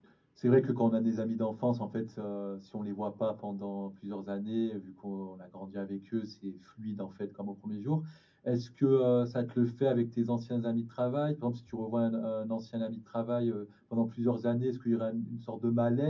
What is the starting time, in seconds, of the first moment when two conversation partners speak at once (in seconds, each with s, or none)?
none